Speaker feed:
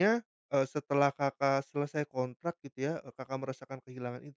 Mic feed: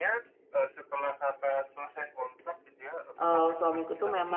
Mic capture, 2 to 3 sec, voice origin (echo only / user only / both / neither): echo only